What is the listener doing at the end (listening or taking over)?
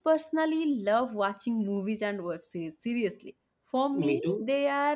listening